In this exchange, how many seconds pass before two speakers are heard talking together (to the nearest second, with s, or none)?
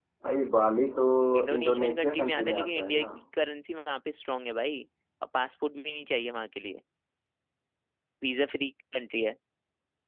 2 s